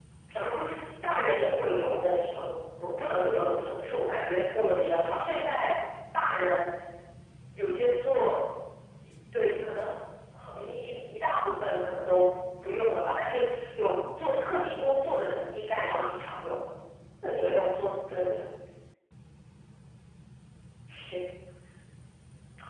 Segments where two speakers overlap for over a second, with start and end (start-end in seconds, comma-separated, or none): none